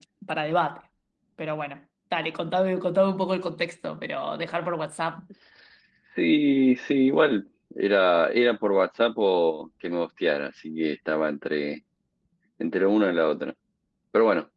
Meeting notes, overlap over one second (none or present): none